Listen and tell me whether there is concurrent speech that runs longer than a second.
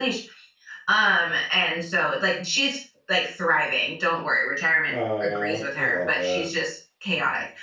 Yes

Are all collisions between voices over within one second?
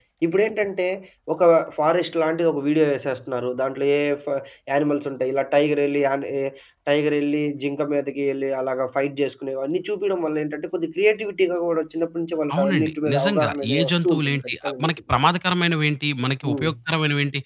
No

